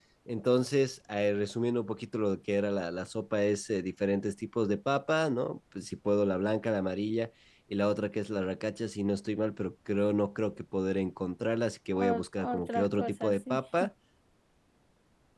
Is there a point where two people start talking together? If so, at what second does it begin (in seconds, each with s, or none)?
11.9 s